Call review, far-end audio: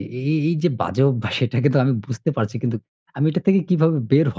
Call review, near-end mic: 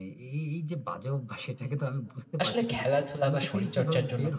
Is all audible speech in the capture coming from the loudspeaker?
No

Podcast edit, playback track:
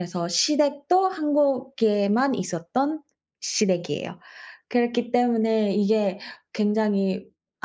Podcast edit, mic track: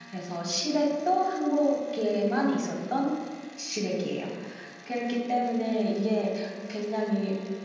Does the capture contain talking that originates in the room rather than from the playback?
No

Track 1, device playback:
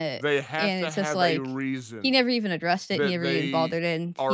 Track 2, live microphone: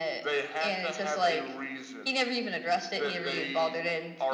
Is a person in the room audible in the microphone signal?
No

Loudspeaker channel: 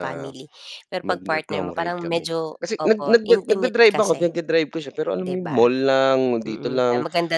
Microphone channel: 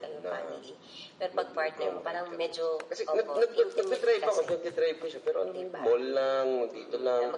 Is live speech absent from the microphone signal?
Yes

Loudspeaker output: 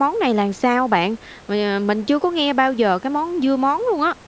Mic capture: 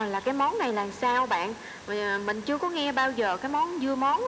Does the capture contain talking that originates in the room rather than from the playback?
No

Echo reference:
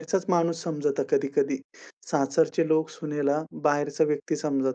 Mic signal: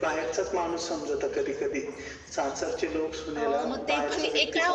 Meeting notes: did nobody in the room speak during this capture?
No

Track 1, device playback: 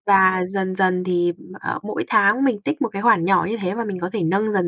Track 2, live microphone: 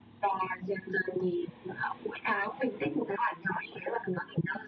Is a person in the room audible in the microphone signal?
No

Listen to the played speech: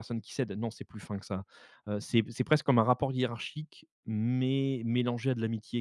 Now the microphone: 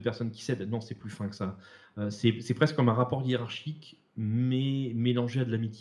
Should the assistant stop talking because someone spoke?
No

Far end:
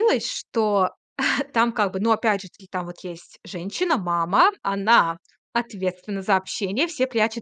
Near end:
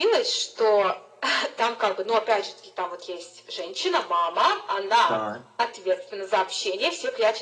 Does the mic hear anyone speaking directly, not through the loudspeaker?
Yes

